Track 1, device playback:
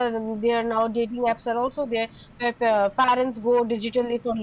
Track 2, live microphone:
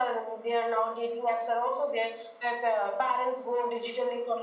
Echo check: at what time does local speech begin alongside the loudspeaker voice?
none

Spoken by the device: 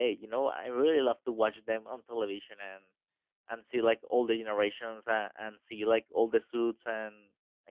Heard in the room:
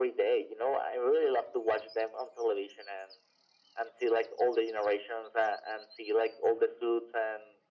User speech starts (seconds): none

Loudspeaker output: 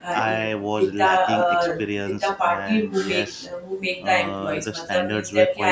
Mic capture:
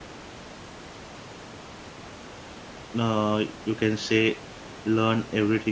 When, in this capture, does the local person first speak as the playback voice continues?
3.0 s

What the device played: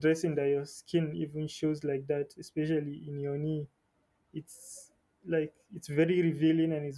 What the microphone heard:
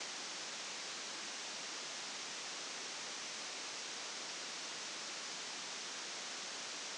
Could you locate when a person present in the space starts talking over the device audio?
none

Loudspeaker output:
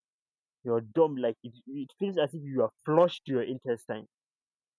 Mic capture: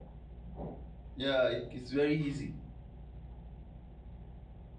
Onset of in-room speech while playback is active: 1.1 s

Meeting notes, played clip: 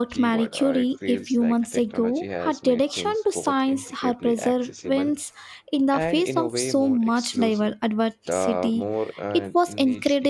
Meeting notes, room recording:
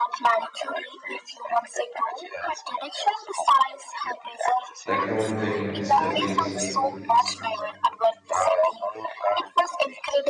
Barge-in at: 4.8 s

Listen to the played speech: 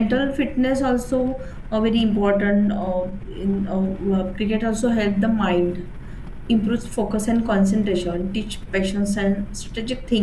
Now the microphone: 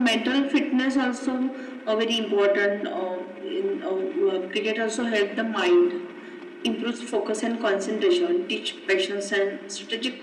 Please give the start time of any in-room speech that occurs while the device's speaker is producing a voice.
none

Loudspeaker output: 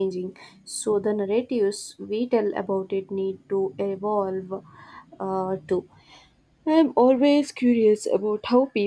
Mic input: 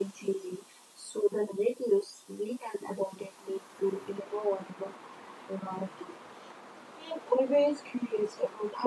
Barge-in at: none

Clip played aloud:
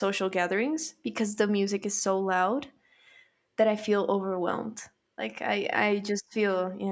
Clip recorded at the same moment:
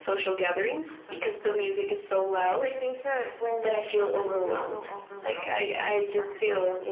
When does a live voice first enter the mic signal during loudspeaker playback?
0.8 s

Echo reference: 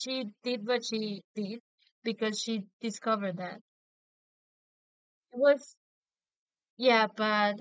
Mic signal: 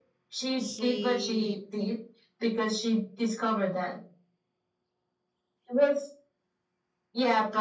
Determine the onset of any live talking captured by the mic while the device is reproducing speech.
0.6 s

